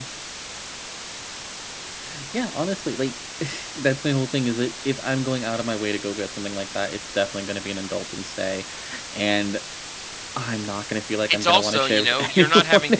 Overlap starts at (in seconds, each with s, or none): 11.3 s